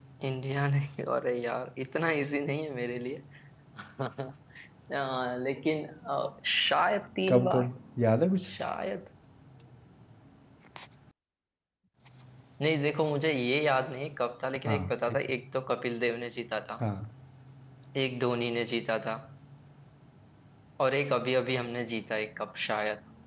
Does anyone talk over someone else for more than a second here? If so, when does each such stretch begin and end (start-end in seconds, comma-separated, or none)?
none